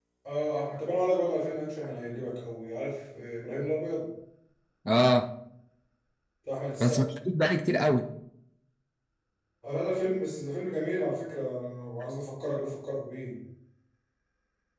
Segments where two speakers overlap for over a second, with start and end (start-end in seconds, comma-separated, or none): none